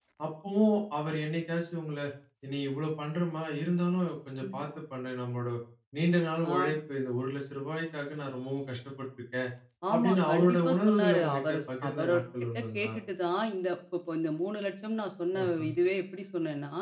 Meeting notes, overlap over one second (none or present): present